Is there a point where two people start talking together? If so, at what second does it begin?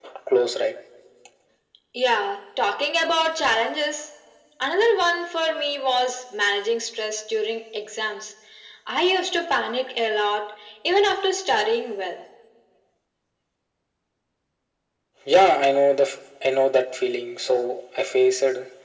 none

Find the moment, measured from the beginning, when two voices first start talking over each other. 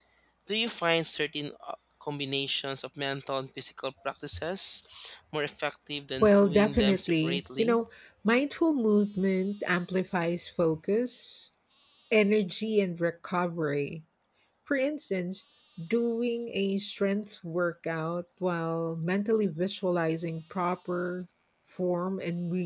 6.2 s

